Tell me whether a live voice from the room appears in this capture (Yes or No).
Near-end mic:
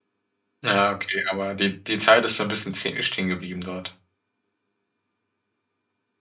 Yes